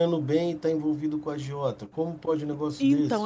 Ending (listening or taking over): taking over